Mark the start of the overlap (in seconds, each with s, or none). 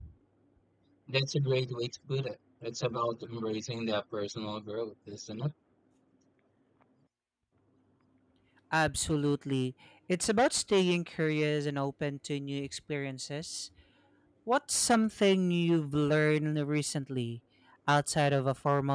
none